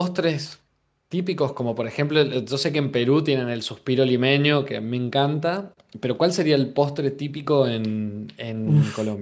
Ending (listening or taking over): taking over